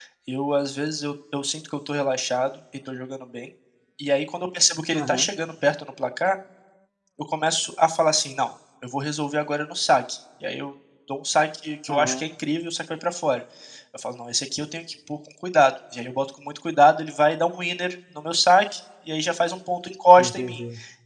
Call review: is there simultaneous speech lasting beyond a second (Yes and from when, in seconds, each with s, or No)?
No